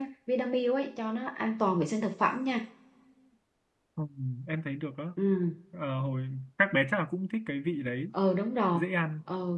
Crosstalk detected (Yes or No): No